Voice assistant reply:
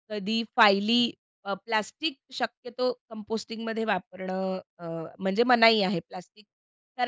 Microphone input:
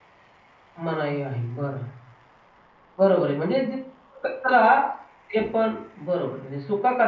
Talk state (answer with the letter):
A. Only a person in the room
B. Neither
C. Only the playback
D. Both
A